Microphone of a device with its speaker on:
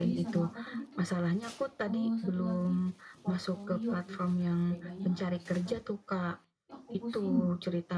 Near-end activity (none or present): present